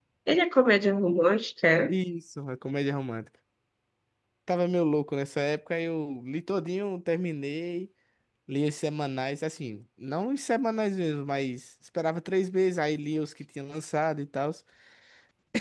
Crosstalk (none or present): none